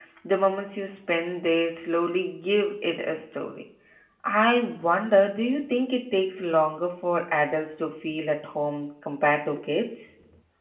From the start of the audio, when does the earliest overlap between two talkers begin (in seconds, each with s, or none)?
none